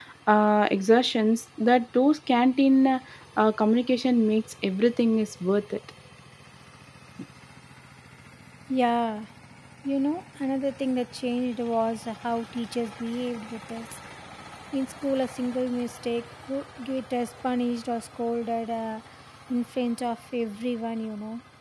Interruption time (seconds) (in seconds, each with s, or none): none